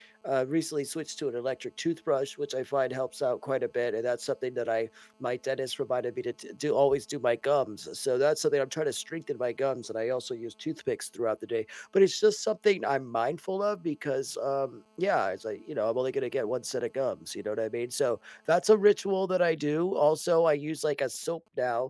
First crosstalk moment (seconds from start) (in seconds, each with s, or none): none